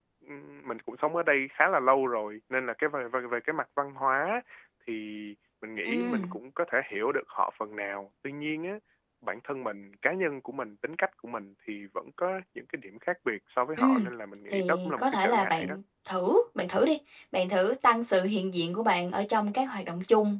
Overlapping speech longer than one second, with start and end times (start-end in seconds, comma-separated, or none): 14.5-15.8